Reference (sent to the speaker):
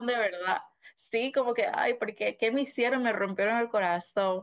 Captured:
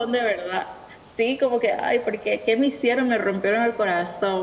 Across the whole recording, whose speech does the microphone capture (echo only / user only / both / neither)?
echo only